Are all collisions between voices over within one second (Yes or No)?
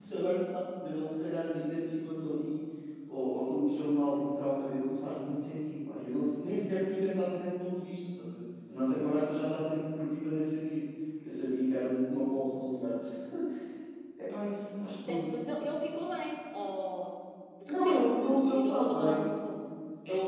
No